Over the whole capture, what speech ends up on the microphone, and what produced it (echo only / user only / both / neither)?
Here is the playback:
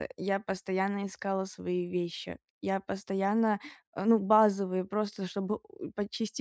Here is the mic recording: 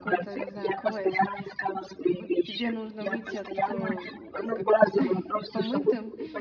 both